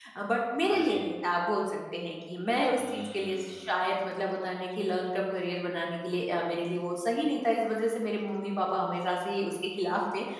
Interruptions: present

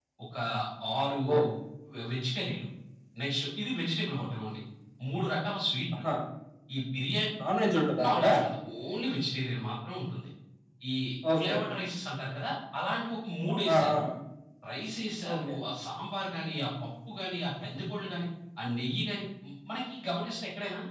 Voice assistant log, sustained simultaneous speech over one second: none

